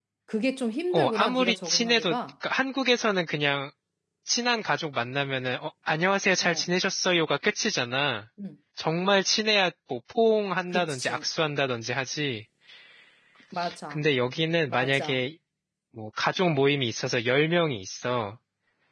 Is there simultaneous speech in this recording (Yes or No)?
Yes